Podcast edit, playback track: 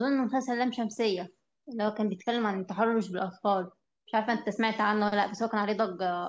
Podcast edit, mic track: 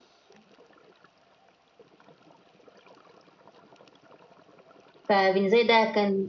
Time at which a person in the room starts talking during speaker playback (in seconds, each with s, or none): 5.1 s